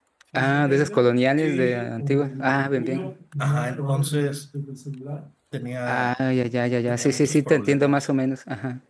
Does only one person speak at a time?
No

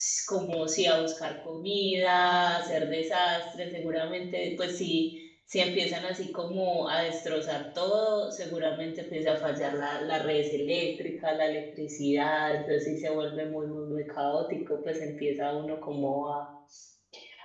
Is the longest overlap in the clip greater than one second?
No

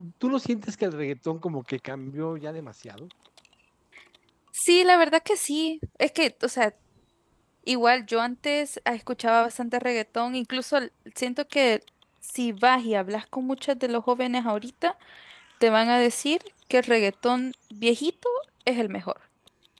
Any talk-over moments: No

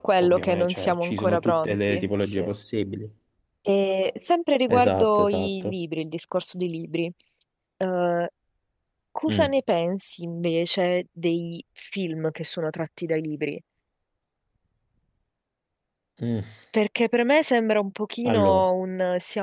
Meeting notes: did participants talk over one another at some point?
Yes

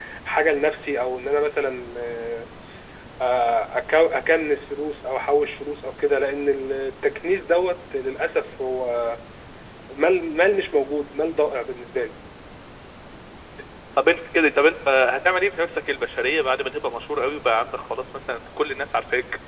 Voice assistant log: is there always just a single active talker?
Yes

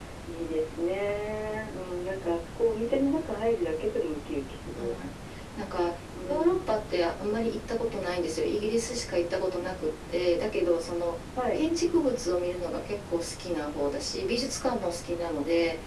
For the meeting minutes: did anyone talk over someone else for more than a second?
No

